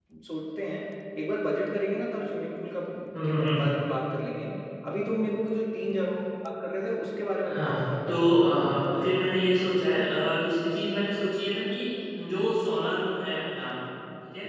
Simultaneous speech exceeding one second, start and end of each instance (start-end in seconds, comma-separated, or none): 7.5-8.8